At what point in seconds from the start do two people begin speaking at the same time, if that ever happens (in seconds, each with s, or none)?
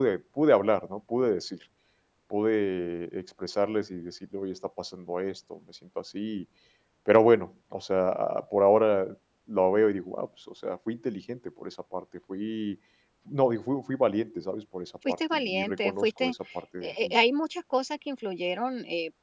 15.1 s